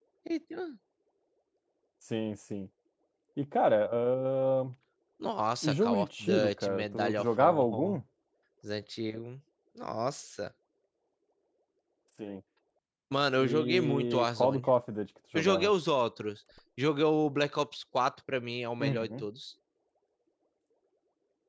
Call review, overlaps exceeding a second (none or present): present